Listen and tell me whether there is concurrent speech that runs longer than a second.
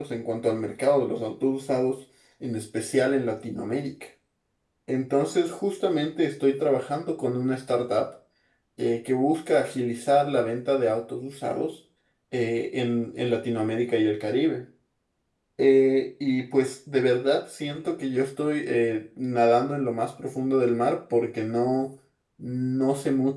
No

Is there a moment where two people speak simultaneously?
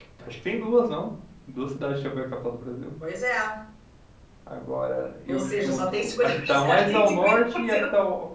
Yes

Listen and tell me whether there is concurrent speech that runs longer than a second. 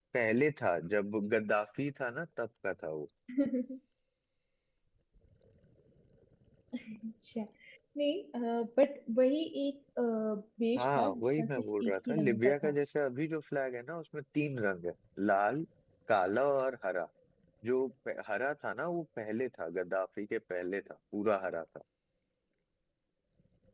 Yes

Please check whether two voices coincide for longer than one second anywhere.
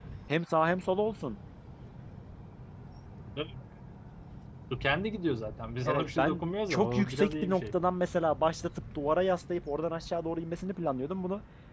Yes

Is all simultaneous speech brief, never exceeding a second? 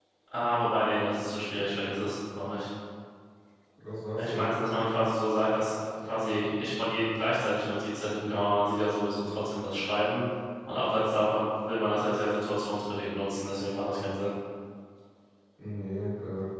Yes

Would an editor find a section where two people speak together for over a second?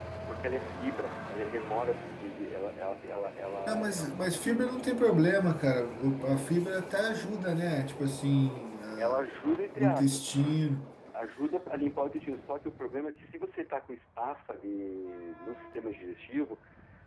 No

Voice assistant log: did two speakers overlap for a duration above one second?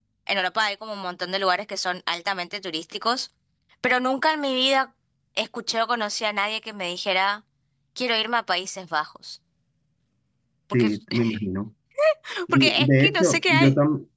Yes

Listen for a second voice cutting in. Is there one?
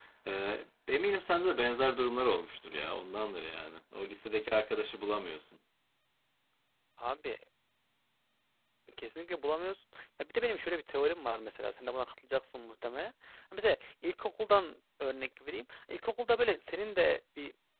No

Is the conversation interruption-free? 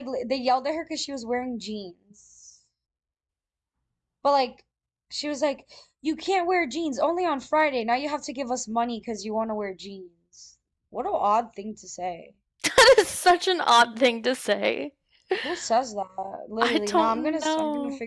No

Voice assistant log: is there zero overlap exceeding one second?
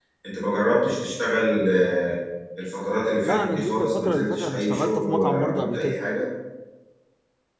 No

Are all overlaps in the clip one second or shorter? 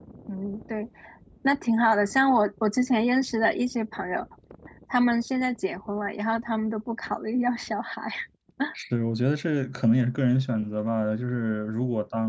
Yes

